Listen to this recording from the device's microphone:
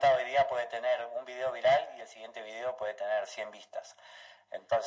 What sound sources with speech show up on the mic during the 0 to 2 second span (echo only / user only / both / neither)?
echo only